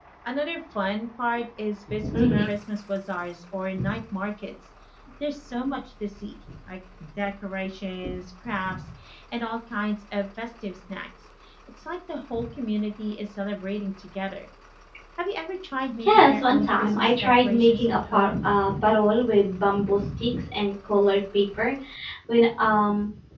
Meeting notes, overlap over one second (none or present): present